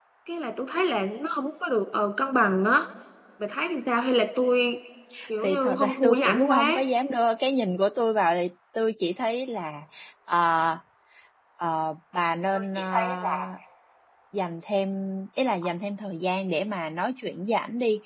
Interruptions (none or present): present